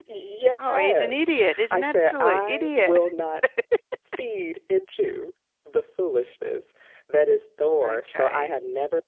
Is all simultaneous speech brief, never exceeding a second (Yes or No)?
No